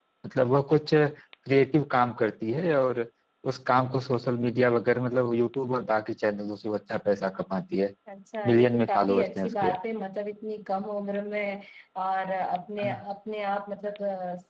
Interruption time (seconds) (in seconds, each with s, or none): 8.4 s